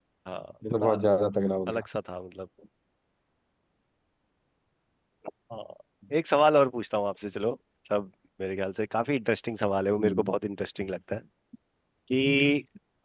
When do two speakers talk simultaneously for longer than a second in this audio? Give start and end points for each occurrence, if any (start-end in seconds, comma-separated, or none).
none